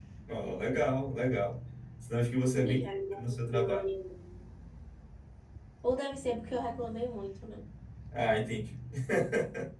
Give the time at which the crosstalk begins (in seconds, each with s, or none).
2.6 s